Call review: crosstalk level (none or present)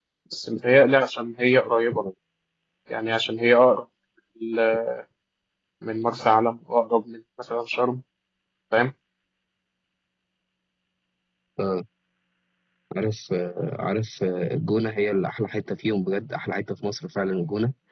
none